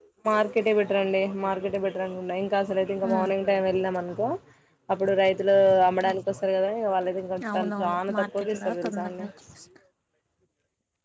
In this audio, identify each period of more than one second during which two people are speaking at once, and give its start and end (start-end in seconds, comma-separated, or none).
7.5-9.2